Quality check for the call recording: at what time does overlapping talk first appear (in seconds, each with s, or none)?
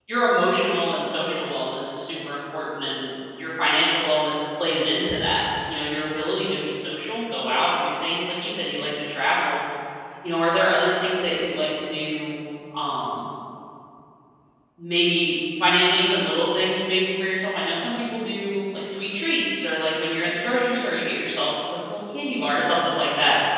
none